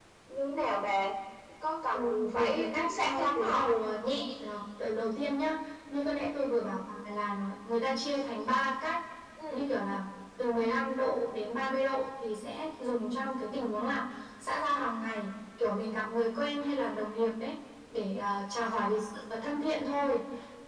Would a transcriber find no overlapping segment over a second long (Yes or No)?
No